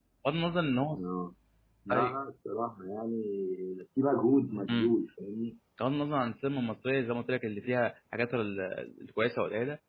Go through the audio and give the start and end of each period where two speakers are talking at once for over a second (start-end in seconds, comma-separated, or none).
none